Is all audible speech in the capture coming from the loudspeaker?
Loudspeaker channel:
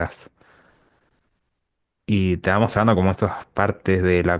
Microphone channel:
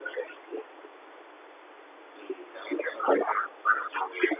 Yes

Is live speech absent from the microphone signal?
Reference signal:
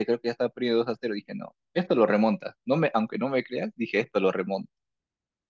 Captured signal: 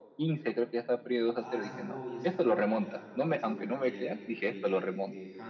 No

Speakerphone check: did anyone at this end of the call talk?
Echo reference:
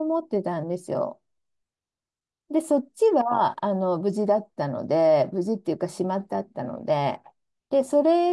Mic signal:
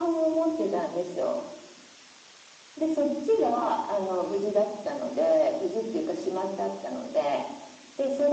No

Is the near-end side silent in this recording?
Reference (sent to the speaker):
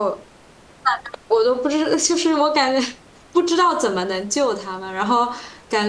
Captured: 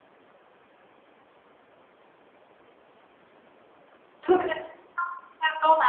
No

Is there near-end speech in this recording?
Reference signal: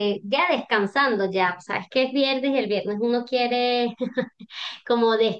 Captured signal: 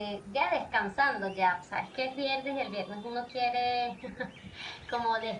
No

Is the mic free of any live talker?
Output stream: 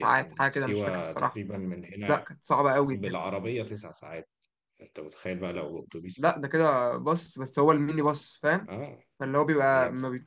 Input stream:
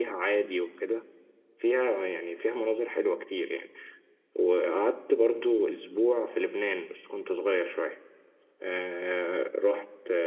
No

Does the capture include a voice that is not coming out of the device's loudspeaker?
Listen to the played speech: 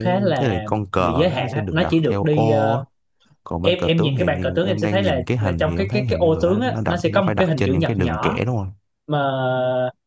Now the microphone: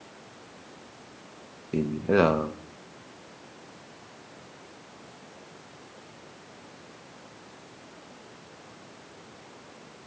Yes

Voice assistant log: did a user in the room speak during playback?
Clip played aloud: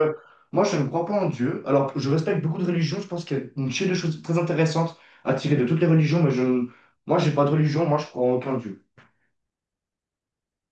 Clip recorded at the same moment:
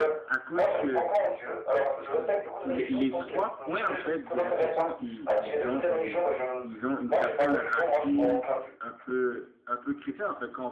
Yes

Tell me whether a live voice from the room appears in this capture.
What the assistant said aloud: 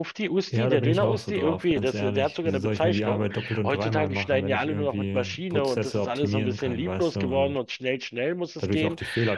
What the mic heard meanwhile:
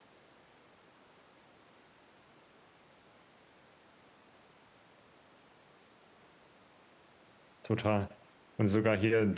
Yes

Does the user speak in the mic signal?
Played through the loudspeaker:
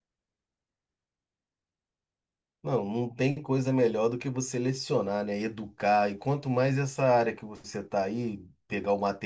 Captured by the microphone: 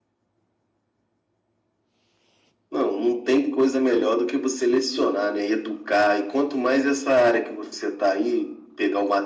No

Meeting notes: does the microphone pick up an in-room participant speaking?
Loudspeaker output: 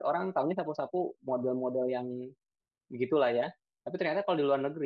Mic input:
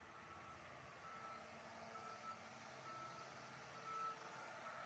No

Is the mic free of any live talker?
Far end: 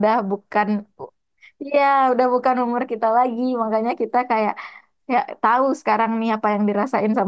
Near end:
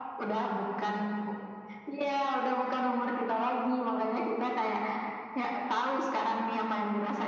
Yes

